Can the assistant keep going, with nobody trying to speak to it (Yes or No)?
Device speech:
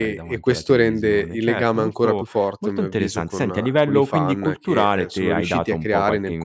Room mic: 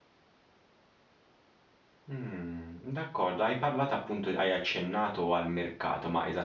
No